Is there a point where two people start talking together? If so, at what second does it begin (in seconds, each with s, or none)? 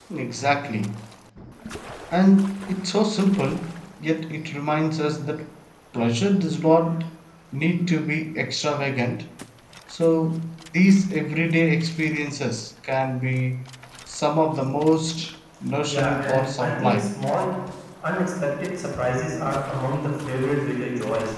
15.9 s